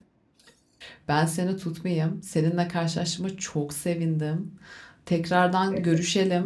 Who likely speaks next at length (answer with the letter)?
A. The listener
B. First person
B